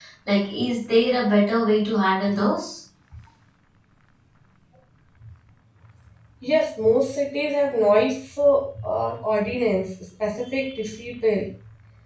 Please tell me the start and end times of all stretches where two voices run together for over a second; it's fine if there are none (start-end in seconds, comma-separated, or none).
none